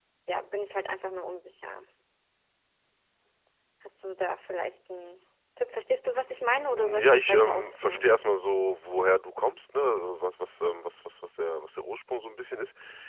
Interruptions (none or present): present